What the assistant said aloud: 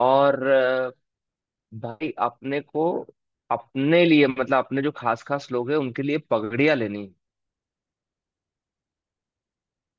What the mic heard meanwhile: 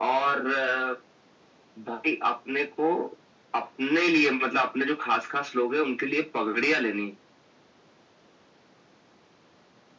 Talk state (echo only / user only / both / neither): echo only